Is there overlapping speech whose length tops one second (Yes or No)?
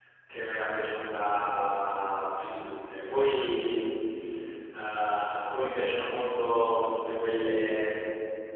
No